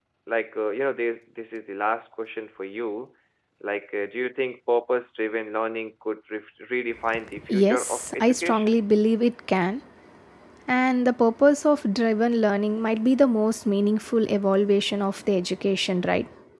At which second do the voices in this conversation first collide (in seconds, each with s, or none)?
7.4 s